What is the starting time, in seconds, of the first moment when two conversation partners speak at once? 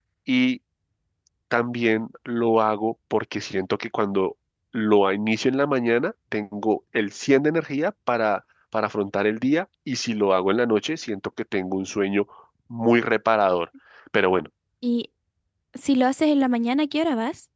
none

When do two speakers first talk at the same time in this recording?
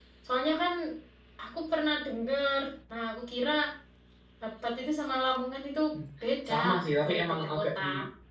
6 s

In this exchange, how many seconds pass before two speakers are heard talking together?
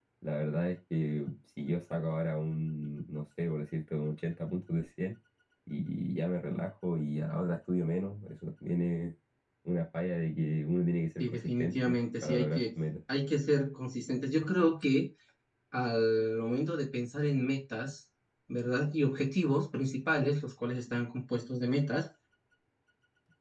11 s

